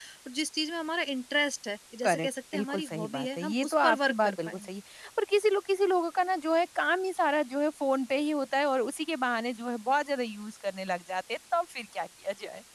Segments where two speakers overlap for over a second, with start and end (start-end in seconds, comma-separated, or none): 2.0-4.7